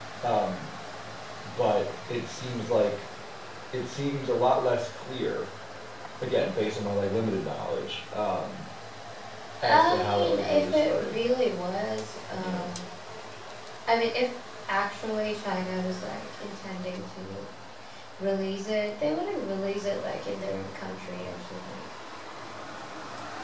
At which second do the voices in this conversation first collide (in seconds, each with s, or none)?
9.6 s